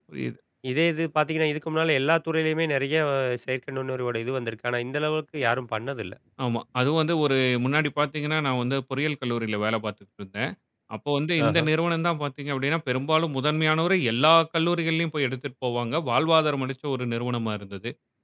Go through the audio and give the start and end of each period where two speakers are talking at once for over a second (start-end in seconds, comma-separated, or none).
none